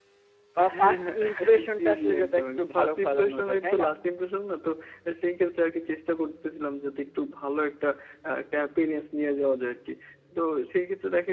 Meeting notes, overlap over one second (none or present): present